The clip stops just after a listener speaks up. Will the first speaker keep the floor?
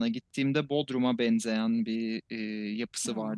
Yes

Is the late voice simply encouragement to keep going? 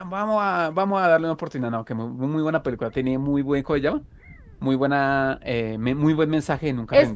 No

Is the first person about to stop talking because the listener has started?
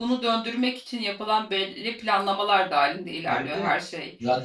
Yes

